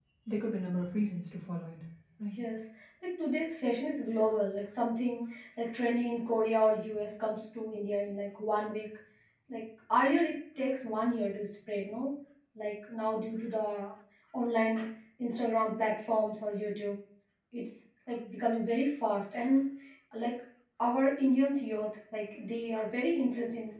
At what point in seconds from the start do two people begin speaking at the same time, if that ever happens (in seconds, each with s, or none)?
none